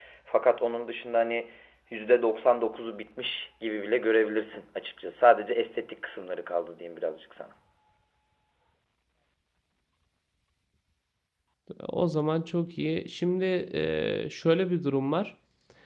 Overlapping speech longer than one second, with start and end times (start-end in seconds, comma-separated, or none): none